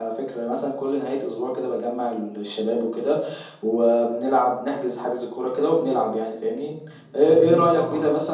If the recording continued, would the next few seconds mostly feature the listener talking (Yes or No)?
No